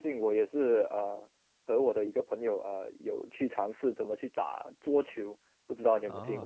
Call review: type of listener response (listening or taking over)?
taking over